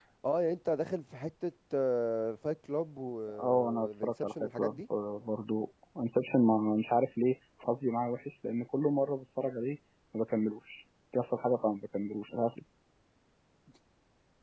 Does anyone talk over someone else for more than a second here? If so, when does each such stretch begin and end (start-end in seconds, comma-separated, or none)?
3.4-4.8